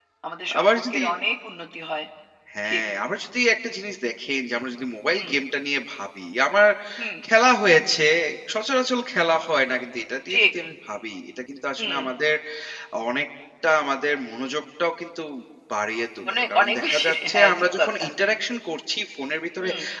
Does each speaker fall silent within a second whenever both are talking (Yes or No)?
No